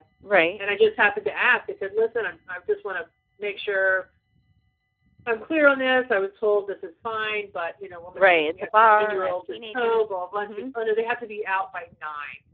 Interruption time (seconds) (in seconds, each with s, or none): 8.2 s